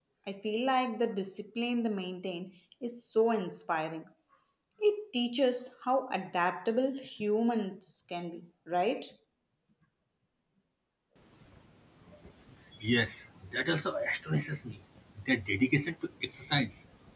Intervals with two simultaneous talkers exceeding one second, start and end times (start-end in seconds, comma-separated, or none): none